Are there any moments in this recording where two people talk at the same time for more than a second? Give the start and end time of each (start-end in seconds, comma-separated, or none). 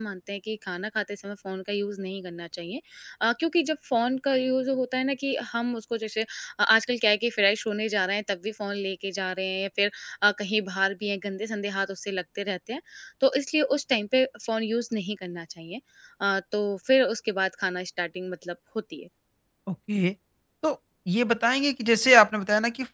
none